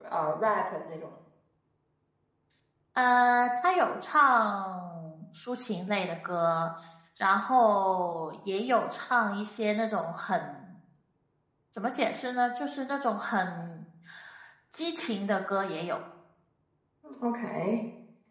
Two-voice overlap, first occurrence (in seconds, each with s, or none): none